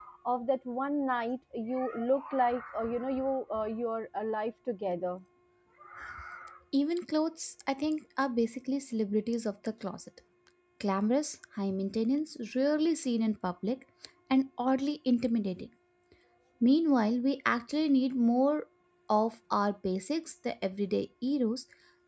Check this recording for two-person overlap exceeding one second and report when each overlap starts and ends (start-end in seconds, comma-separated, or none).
none